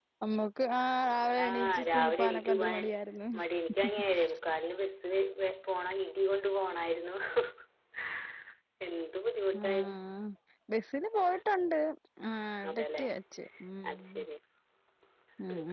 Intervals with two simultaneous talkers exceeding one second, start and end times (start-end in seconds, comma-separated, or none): 1.4-2.8